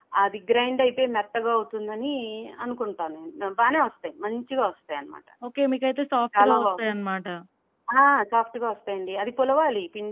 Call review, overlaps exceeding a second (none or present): none